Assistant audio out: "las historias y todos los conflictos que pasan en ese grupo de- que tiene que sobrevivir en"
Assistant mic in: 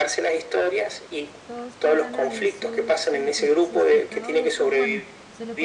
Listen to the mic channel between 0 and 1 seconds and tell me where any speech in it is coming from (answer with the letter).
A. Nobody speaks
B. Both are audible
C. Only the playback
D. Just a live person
C